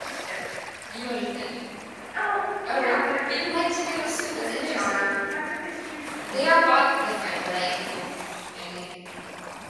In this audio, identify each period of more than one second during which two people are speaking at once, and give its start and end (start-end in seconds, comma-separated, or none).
none